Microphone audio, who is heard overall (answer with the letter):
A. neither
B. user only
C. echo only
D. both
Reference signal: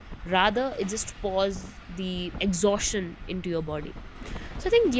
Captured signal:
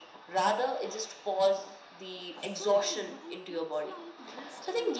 D